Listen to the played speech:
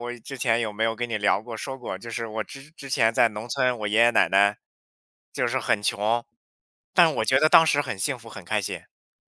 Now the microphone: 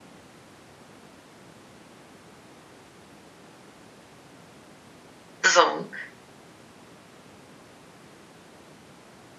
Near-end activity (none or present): present